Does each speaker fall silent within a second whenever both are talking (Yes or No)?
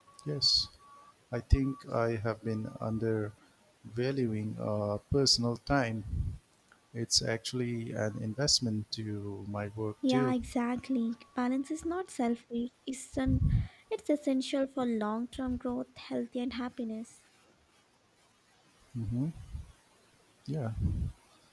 Yes